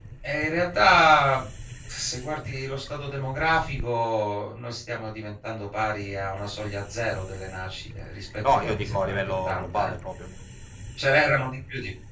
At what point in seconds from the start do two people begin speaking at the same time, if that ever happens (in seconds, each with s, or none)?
8.4 s